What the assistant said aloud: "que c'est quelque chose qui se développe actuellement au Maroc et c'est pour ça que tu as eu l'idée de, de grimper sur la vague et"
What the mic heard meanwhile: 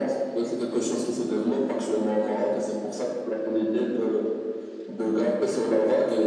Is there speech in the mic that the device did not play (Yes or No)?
No